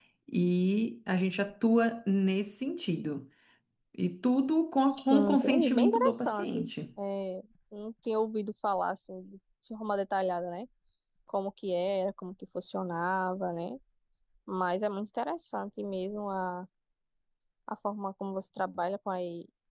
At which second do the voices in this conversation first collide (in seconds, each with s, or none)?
4.9 s